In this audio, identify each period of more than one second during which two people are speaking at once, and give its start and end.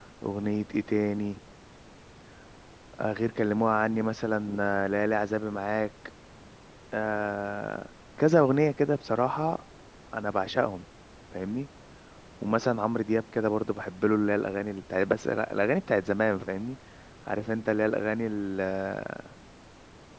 none

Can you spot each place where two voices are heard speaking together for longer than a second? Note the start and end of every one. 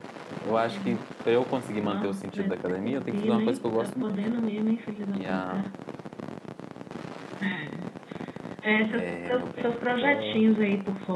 1.8-4.2, 8.9-10.5

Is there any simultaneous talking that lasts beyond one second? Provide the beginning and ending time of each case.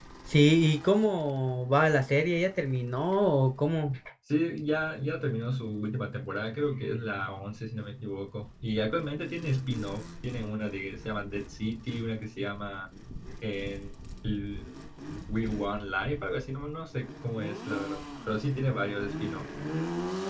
none

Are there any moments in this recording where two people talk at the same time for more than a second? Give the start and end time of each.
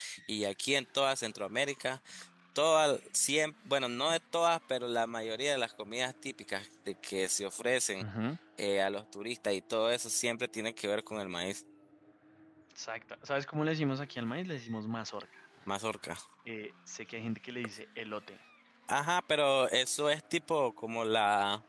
none

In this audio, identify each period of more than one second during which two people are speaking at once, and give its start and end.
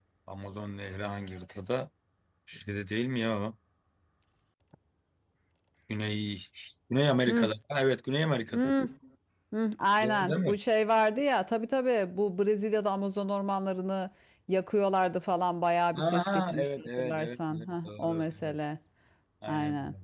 16.0-18.6

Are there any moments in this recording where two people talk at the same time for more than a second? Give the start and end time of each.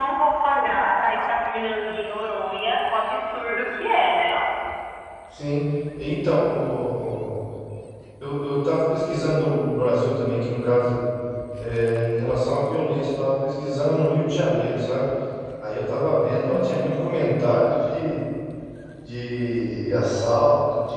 none

